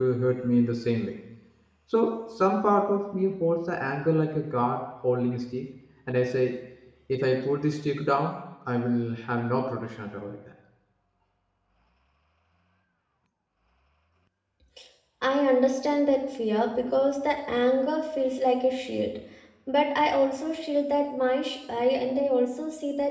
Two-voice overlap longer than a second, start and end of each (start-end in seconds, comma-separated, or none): none